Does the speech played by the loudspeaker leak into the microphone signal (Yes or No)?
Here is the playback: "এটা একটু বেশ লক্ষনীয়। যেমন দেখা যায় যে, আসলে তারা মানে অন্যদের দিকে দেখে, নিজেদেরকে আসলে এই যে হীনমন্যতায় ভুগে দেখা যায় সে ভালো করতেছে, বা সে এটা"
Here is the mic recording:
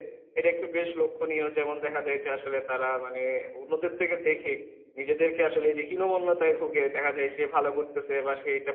Yes